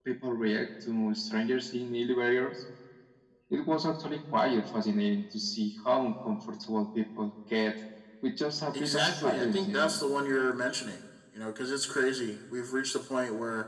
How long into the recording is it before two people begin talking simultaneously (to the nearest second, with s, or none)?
9 s